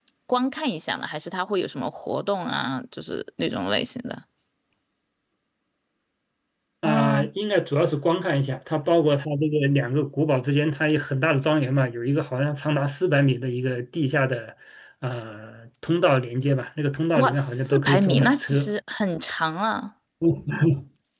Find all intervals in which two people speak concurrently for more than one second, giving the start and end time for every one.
17.2-18.7

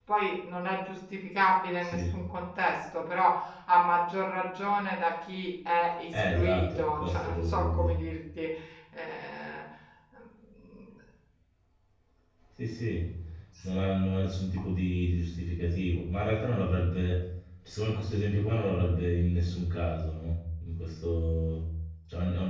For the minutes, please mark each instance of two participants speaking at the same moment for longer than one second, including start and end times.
6.3-8.0

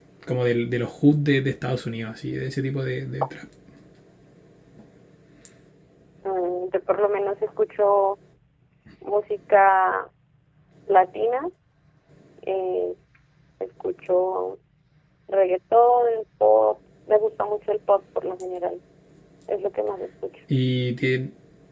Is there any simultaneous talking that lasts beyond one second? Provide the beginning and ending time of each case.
none

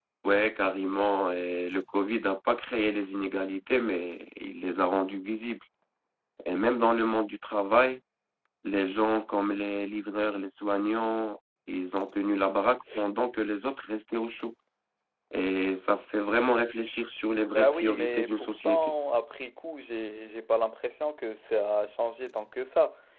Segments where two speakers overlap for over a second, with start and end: 17.5-19.0

